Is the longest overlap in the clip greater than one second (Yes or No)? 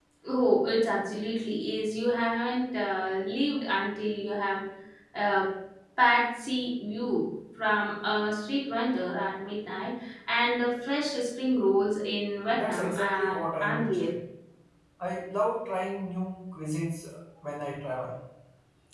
Yes